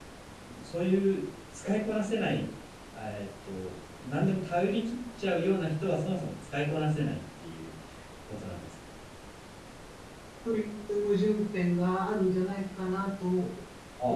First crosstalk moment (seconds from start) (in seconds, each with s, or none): none